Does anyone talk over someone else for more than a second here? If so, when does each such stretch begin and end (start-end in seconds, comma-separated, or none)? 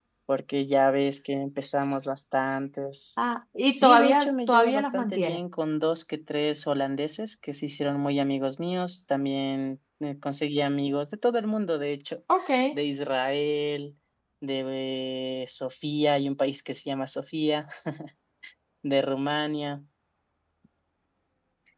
3.7-5.4